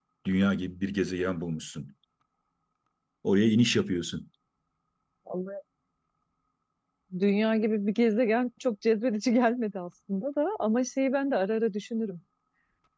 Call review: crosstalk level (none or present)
none